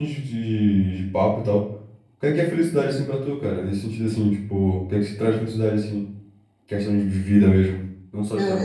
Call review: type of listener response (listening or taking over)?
taking over